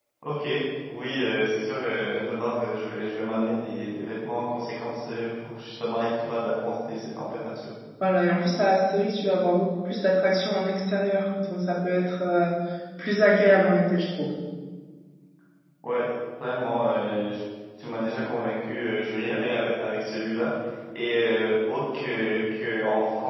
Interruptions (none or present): none